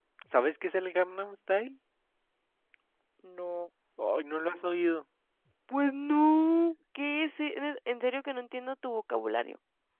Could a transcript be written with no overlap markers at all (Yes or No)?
Yes